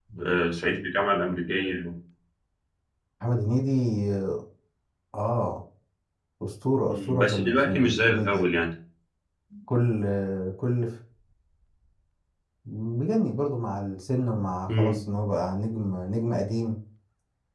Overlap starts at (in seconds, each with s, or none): 6.9 s